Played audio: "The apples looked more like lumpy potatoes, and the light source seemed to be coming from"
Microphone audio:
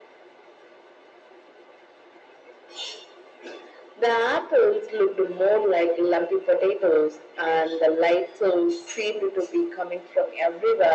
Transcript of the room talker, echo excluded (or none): none